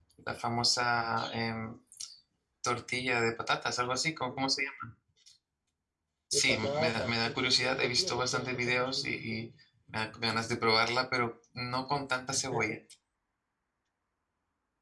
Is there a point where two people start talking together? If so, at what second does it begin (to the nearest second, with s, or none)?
6 s